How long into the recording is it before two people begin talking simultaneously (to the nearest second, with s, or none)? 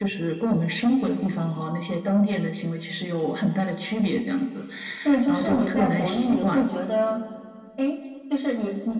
5 s